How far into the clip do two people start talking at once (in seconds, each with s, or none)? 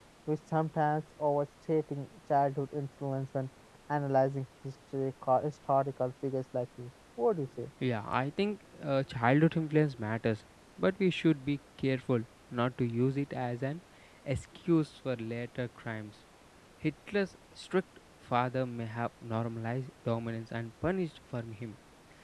none